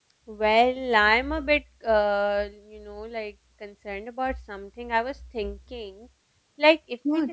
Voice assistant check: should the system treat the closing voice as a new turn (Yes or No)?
No